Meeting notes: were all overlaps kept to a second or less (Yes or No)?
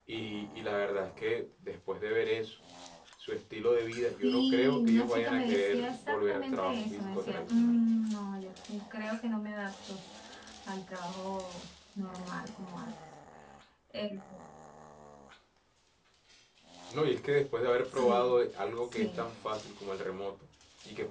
No